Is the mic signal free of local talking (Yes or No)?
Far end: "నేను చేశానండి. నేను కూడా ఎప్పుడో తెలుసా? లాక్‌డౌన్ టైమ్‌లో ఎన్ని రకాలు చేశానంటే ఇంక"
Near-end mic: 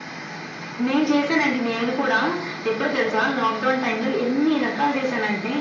Yes